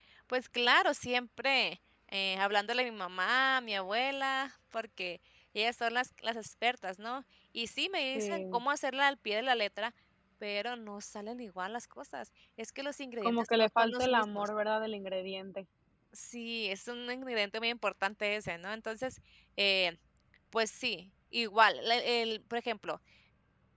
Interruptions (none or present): present